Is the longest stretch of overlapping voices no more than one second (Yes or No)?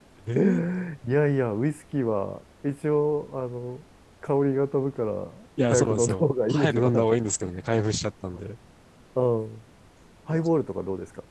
No